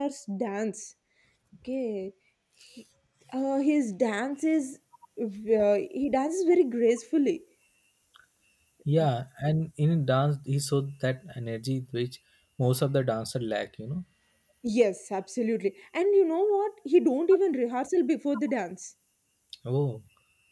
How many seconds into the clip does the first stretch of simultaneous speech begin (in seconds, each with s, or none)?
none